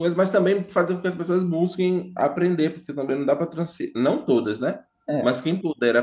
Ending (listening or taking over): listening